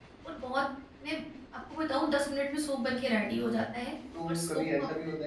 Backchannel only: No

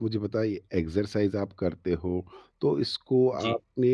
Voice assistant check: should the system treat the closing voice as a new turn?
No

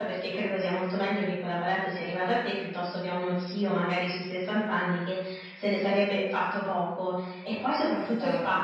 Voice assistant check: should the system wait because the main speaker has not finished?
Yes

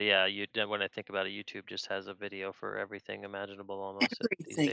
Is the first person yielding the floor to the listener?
Yes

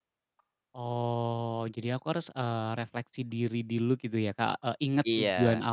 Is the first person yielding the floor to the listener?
No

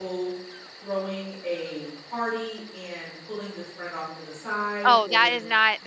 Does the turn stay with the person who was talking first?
No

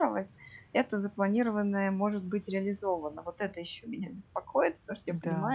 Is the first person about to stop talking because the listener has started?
No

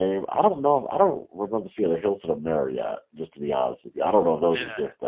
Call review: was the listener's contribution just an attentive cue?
No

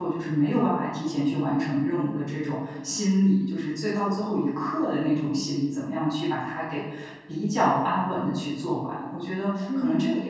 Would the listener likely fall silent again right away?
Yes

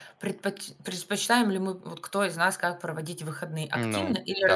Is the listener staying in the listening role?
Yes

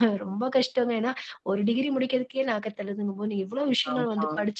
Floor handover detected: No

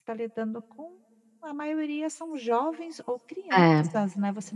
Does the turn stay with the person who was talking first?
Yes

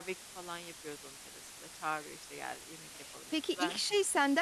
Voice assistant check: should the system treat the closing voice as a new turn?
Yes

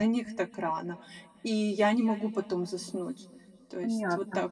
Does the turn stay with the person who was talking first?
No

